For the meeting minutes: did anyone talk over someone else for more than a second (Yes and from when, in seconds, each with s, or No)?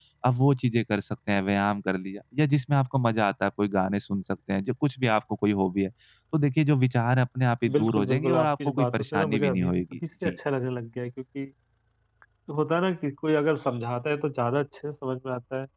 Yes, from 7.6 s